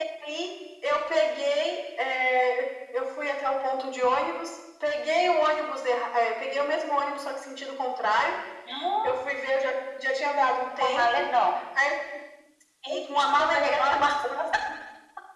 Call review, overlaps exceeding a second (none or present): present